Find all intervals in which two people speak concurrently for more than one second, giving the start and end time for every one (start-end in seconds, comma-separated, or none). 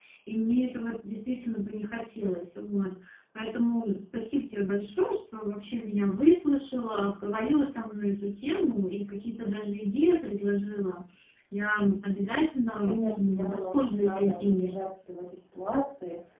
12.9-14.7